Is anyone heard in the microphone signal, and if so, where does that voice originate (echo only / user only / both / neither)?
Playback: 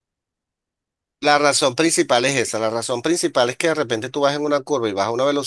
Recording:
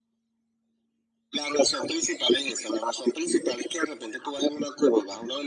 echo only